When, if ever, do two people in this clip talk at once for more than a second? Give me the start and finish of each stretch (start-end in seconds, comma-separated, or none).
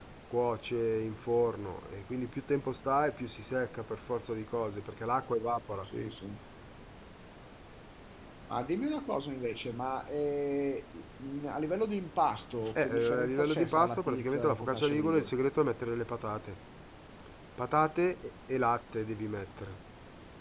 12.7-15.3